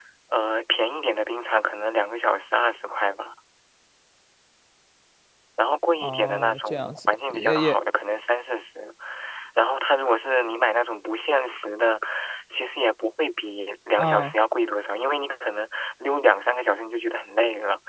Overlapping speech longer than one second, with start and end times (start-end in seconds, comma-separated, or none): 6.0-7.8